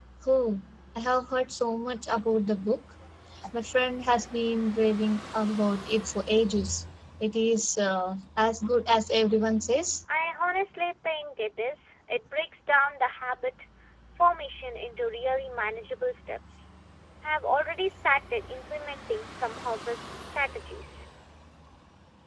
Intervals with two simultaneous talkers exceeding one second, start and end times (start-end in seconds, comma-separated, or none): none